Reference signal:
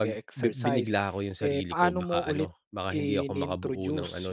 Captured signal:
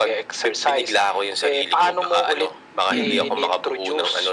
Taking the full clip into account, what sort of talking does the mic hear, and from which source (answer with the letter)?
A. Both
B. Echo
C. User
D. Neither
A